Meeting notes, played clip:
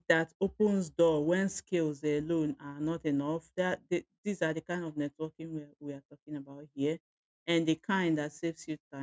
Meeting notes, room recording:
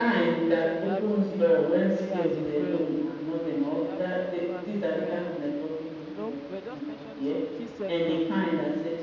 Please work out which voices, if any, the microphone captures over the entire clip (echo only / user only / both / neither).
both